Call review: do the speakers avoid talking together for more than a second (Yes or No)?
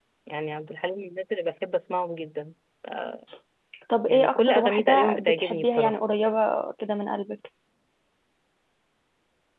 No